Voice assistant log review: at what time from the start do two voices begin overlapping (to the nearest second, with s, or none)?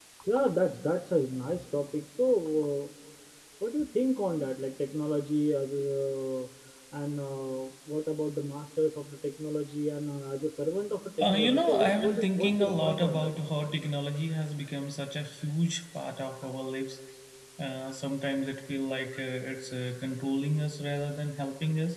11 s